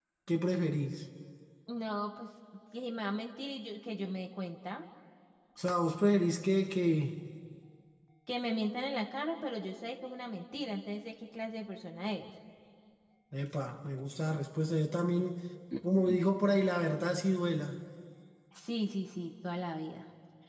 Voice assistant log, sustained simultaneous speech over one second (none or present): none